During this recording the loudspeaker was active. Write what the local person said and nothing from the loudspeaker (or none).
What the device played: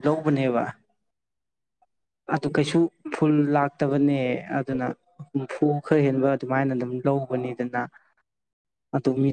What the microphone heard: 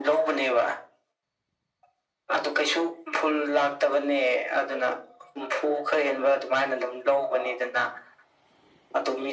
none